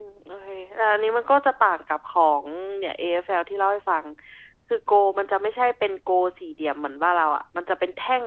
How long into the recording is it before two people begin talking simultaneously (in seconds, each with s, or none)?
none